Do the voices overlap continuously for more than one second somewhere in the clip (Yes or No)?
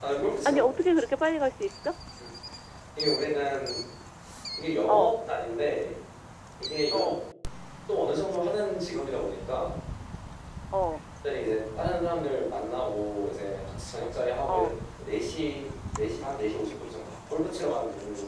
No